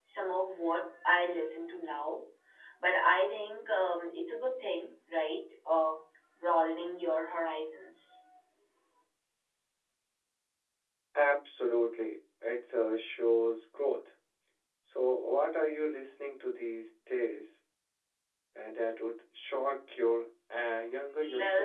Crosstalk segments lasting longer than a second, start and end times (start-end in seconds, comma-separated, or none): none